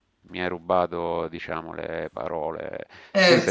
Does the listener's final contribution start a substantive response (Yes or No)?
Yes